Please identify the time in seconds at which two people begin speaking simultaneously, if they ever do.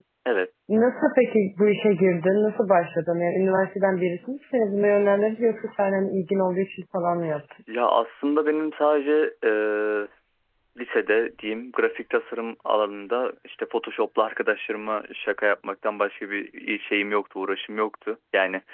none

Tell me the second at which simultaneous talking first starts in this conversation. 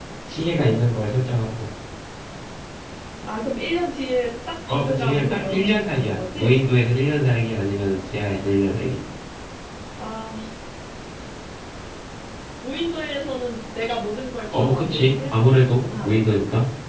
4.7 s

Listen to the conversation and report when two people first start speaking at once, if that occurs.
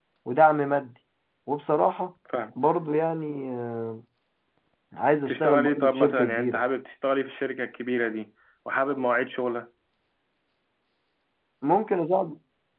5.2 s

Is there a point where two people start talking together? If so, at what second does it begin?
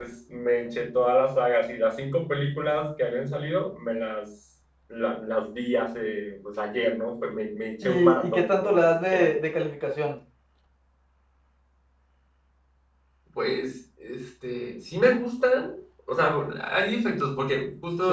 7.8 s

